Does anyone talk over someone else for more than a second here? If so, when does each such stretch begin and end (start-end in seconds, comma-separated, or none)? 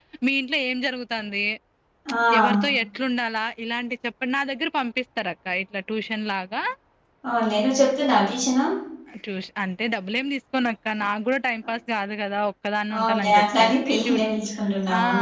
13.0-14.3